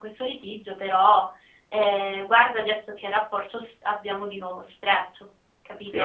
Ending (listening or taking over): taking over